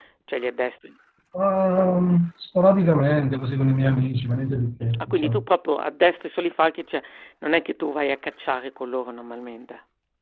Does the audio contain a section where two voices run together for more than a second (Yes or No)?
No